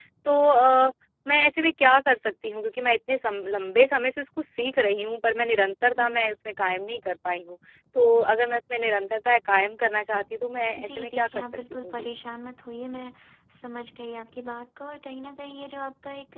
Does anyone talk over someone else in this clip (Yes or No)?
Yes